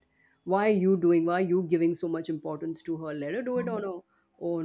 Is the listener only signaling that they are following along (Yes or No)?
Yes